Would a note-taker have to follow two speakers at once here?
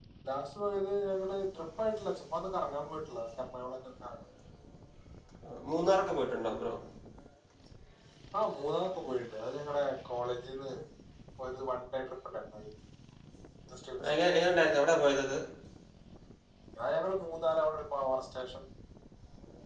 No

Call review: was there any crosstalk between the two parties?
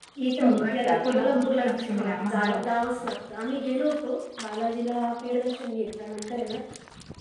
Yes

